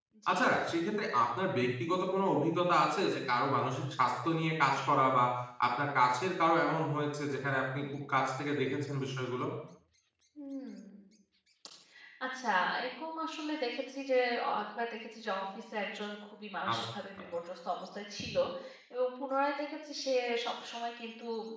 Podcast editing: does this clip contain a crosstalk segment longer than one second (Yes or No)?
No